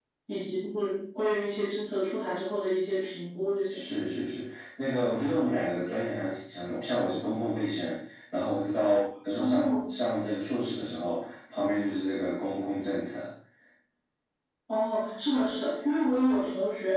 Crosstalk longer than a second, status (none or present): none